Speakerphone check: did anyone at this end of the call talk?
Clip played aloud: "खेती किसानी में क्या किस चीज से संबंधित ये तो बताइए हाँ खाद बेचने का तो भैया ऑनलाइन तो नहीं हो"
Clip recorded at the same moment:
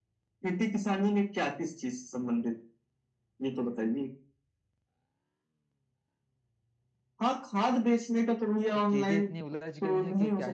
Yes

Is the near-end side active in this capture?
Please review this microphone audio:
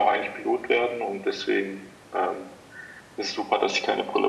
No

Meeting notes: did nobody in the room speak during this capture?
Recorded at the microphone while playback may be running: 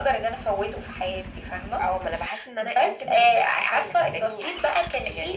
Yes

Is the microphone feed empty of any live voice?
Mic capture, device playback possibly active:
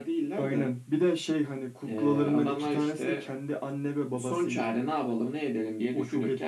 Yes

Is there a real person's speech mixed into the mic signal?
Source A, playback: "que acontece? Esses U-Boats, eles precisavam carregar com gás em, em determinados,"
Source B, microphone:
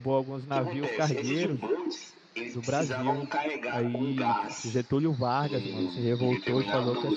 Yes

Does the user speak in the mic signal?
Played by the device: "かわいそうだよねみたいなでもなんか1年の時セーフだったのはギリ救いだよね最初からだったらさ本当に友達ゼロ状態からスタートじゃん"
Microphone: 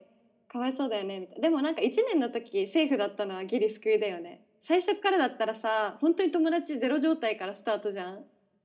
No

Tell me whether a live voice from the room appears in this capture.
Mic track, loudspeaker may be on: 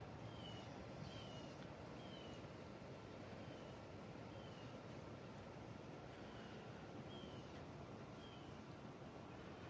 No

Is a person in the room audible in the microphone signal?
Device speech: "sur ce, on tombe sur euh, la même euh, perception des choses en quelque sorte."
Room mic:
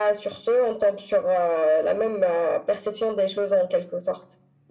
No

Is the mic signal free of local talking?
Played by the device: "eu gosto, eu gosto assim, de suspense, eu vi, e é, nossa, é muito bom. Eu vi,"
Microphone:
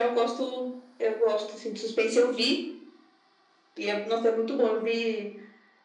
Yes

